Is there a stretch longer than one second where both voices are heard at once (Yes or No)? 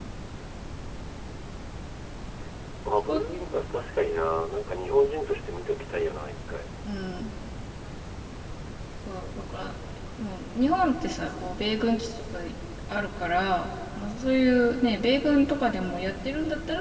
No